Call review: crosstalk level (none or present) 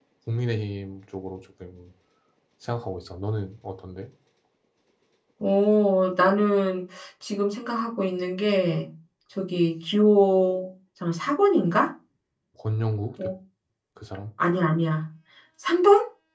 none